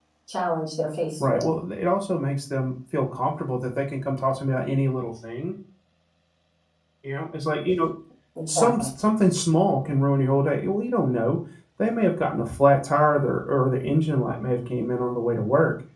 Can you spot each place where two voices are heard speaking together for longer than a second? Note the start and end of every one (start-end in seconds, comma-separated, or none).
none